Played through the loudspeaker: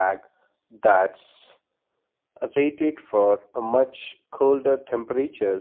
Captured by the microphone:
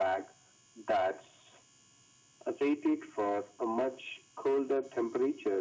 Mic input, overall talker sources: echo only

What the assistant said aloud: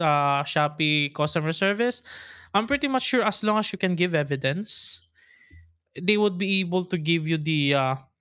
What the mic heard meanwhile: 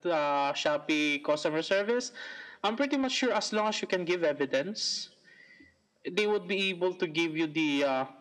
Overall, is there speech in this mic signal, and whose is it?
echo only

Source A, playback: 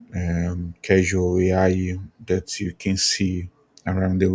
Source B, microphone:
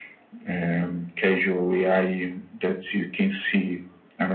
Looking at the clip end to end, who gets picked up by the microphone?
echo only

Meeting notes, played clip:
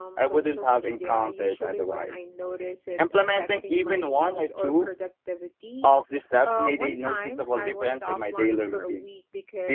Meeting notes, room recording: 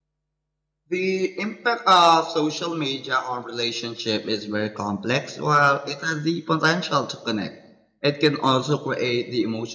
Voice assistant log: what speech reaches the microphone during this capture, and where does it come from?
user only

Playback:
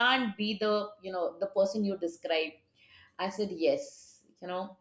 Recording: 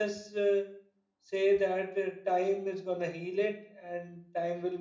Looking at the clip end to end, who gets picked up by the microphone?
user only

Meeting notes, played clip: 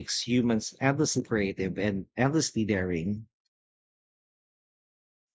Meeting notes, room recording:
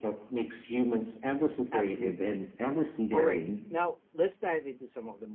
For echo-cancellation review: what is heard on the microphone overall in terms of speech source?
both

